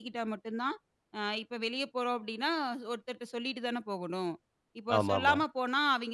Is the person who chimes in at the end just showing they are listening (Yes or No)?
Yes